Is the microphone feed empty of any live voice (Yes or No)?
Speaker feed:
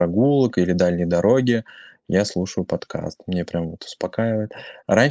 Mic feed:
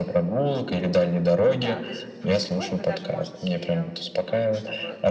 No